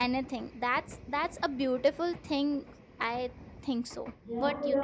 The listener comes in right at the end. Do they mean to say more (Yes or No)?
Yes